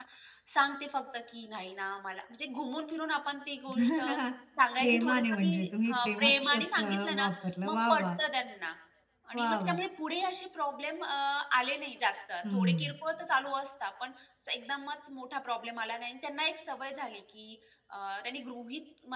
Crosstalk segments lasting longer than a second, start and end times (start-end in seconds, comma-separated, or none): 4.8-7.3